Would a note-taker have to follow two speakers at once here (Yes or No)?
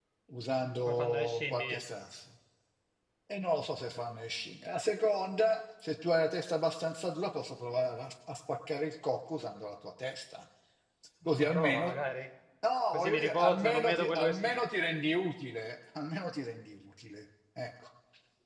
Yes